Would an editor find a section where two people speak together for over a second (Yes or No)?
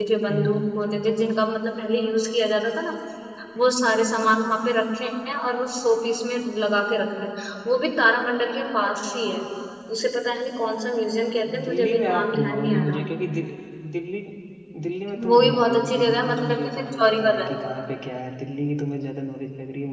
Yes